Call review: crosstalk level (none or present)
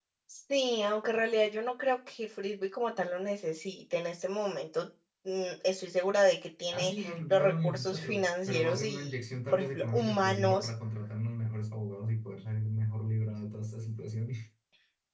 present